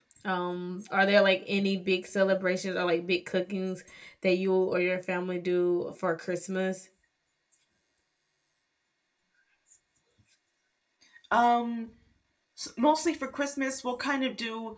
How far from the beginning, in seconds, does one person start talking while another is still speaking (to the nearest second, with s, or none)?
none